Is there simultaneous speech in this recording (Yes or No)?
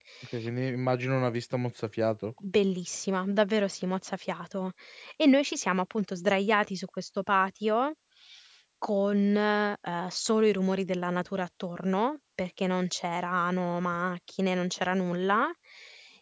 No